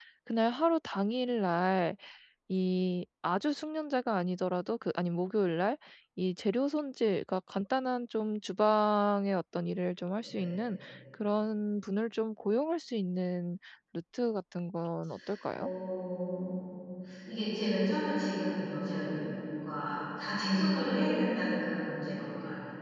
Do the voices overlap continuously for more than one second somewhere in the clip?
No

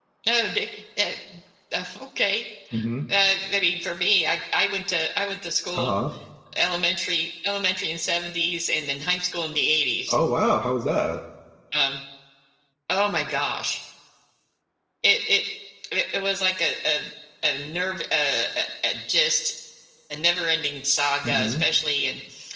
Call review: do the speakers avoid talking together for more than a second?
Yes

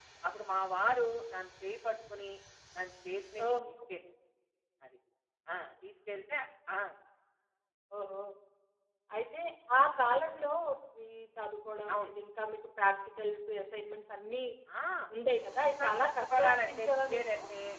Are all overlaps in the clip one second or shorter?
No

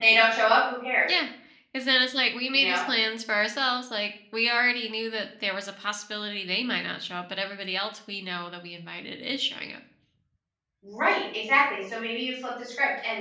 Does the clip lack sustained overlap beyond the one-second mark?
Yes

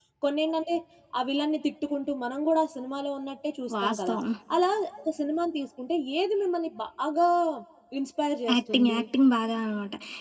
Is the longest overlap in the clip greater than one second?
No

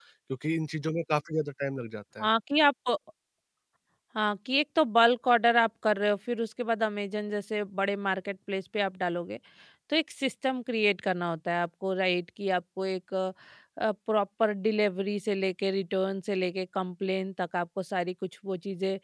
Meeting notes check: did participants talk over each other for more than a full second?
No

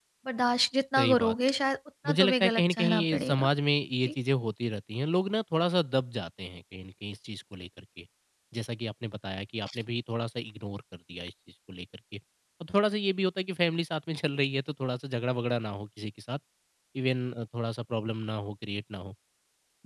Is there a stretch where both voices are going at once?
Yes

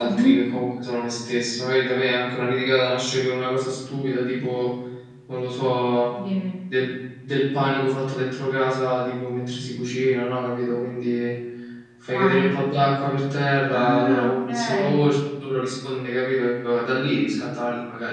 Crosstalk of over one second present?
Yes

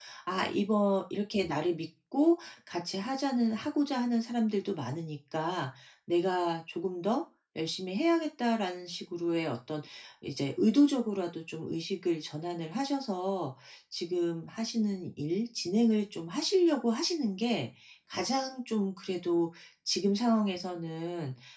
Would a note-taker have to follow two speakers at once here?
No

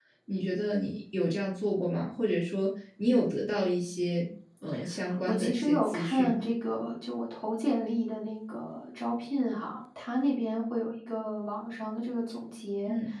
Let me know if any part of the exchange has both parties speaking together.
Yes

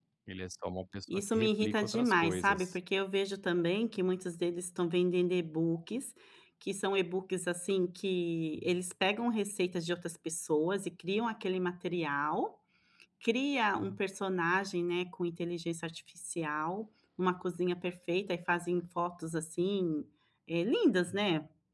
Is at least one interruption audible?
Yes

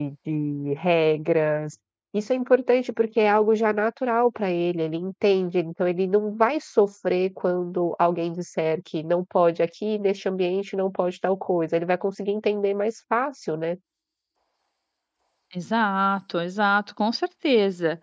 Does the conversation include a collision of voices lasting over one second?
No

